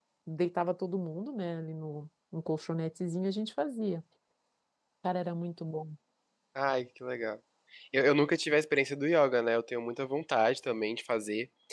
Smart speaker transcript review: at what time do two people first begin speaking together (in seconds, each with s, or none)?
none